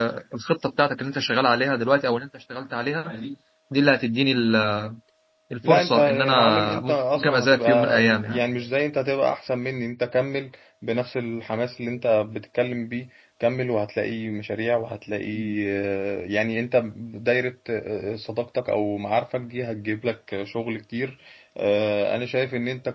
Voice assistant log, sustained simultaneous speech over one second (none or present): present